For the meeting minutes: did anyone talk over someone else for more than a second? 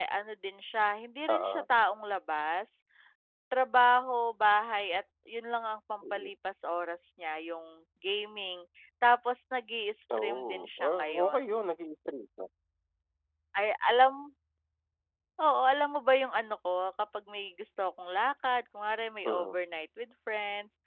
Yes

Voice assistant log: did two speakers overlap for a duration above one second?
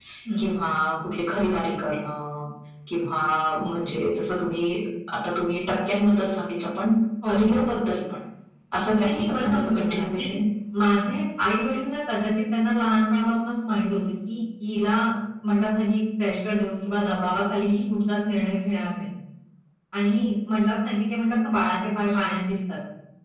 Yes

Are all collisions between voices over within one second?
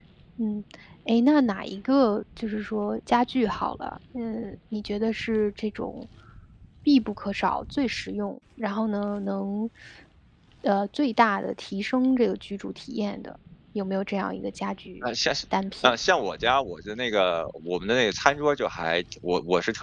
Yes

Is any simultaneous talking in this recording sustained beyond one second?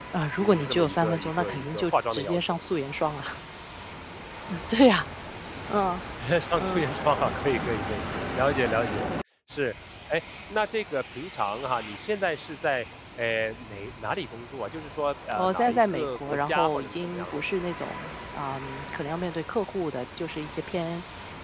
Yes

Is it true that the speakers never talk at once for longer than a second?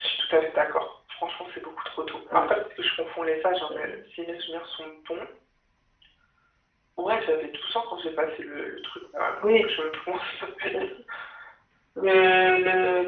Yes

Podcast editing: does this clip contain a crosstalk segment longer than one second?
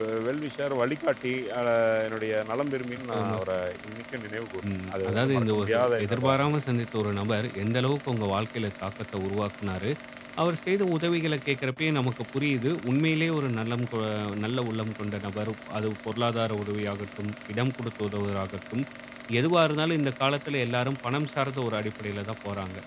Yes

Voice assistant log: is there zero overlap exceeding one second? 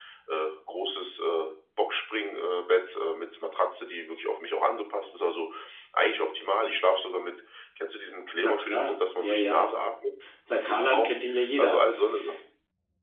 No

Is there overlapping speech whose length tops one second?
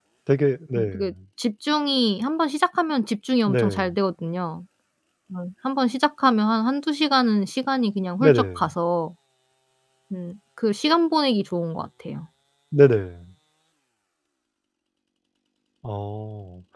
No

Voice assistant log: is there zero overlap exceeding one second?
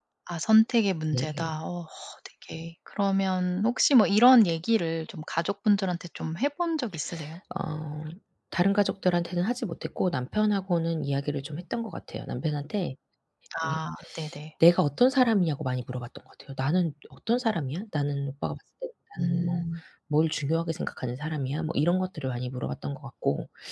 Yes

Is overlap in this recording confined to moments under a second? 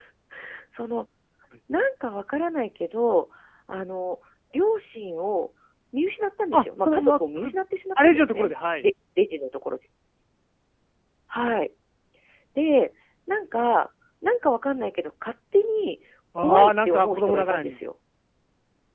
No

